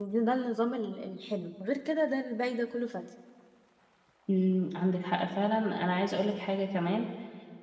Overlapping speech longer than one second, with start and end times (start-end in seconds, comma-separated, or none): none